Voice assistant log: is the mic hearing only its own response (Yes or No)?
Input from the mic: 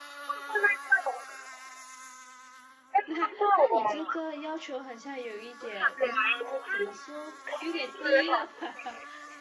No